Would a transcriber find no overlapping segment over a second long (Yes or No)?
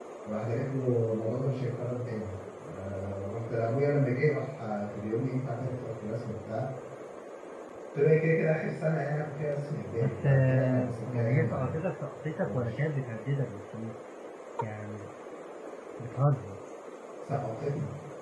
No